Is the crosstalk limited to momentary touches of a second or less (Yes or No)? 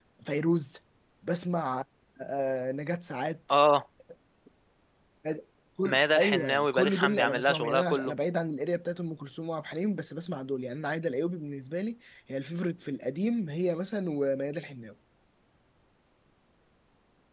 No